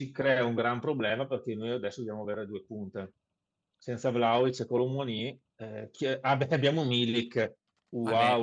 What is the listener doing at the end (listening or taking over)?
taking over